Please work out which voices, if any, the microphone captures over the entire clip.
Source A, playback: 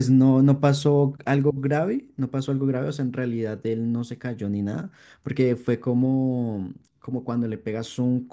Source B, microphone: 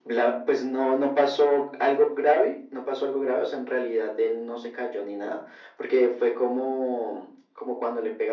echo only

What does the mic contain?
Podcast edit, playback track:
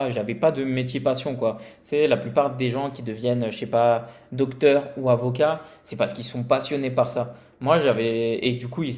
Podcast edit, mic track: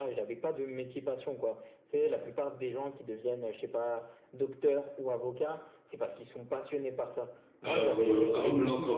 both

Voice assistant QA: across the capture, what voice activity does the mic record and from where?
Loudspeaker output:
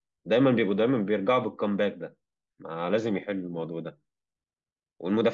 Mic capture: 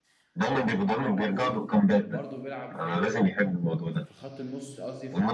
both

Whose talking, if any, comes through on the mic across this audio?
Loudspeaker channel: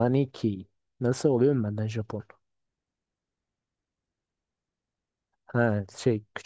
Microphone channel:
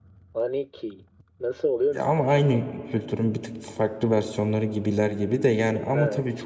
both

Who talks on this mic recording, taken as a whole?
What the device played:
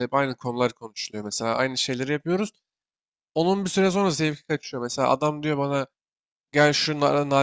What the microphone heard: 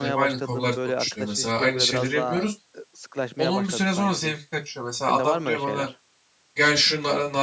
both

